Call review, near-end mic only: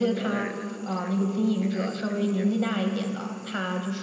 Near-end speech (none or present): present